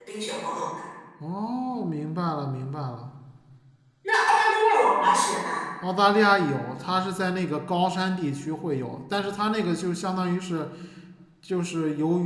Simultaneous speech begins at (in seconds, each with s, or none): none